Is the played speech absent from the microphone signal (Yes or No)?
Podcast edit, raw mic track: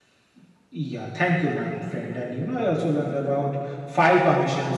Yes